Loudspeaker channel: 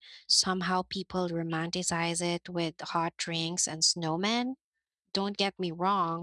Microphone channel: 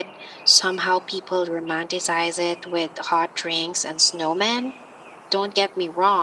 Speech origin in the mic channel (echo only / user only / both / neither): echo only